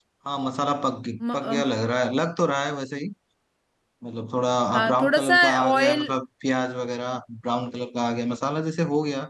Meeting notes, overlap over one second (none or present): present